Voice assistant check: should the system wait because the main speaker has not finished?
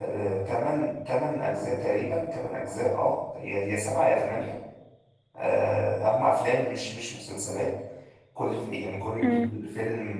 Yes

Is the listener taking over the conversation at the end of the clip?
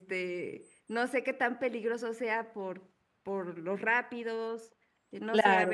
Yes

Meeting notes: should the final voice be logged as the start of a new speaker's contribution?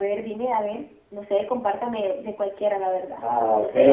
Yes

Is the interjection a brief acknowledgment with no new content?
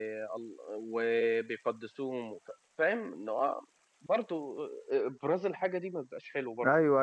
No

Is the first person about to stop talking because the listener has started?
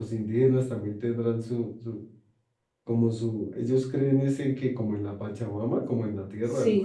Yes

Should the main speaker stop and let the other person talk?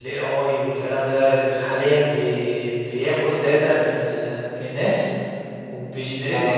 No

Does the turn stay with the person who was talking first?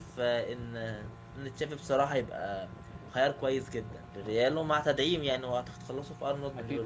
No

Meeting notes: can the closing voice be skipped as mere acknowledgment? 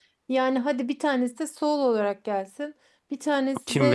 Yes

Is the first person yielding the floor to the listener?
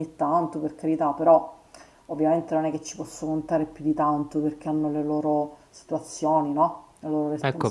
Yes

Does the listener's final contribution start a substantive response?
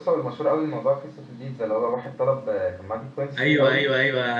Yes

